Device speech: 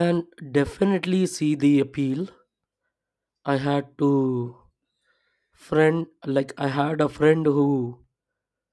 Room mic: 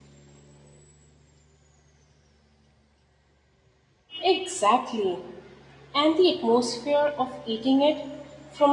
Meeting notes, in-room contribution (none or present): present